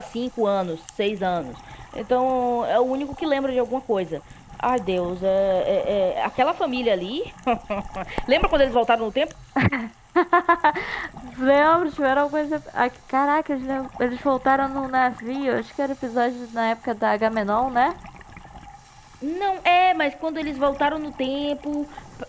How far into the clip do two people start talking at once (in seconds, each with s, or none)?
none